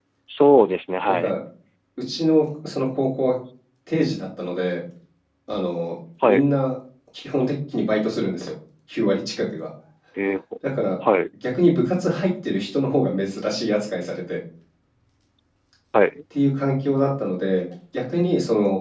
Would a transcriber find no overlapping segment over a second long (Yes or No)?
Yes